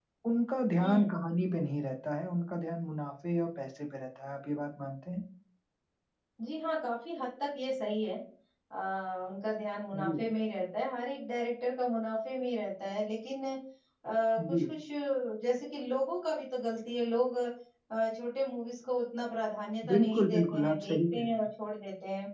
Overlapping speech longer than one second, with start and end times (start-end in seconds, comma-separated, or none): 19.9-21.4